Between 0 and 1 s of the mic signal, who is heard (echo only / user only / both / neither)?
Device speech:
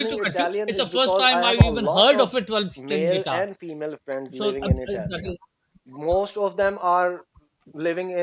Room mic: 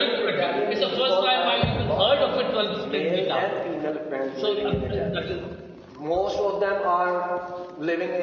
echo only